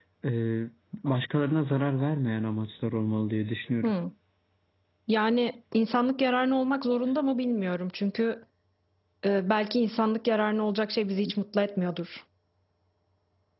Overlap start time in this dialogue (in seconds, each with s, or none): none